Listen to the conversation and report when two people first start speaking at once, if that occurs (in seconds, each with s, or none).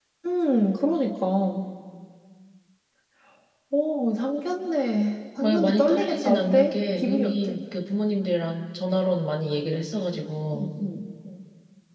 5.4 s